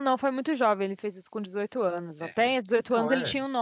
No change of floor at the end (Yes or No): Yes